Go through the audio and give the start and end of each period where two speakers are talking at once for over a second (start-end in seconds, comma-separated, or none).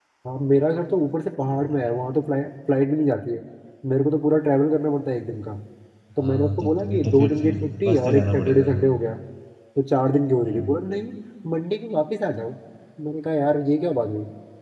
6.2-8.7